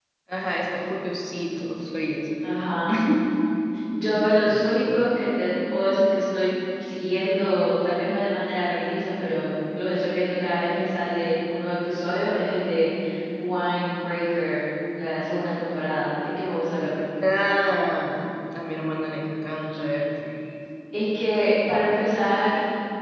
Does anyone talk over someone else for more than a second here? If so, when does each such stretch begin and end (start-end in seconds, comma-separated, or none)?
none